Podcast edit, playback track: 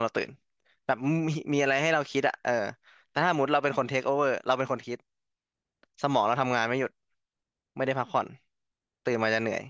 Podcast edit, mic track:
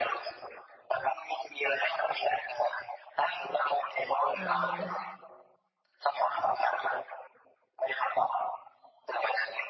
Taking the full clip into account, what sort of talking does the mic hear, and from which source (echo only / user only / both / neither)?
both